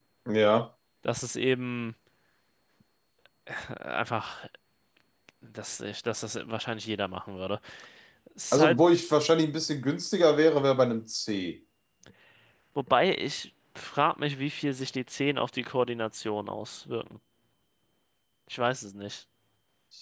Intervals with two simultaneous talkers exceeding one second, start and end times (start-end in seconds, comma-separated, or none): none